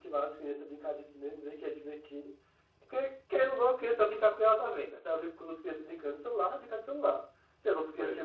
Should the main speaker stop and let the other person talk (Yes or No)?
No